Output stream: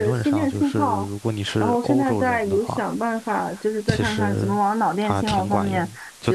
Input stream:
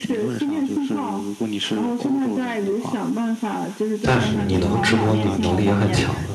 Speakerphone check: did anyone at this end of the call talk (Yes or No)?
Yes